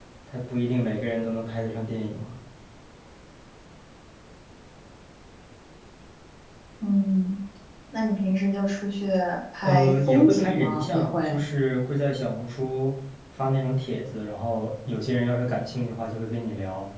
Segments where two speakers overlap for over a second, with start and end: 9.6-11.3

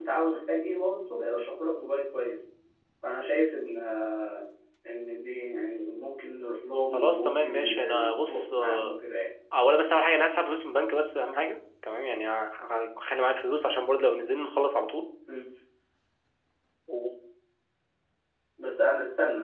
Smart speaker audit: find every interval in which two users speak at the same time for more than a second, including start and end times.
6.9-9.0

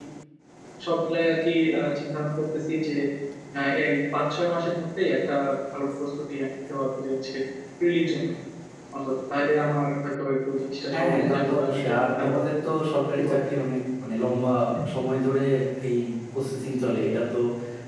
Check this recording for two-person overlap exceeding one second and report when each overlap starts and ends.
10.9-12.4

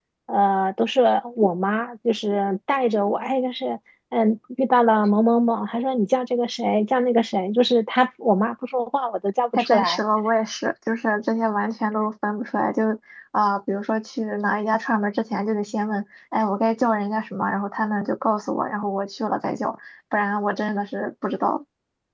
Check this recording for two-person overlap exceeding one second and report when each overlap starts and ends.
none

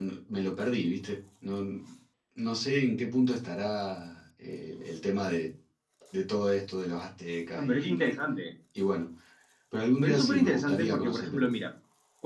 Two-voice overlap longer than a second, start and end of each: 10.0-11.5

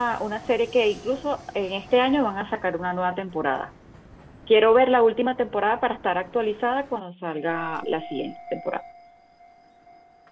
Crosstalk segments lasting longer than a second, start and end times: none

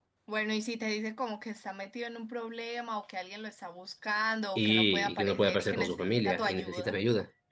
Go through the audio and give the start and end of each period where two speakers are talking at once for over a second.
4.6-7.0

